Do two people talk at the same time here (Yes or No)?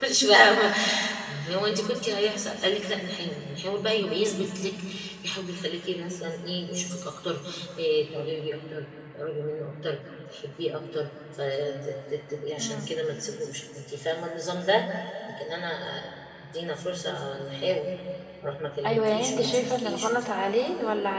Yes